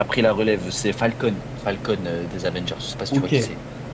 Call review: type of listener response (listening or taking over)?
taking over